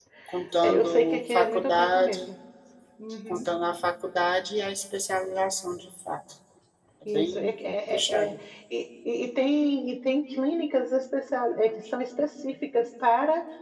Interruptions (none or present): present